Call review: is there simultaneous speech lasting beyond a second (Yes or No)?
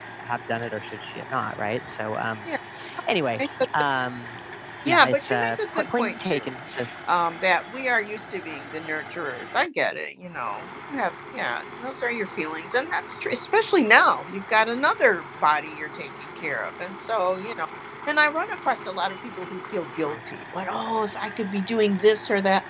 Yes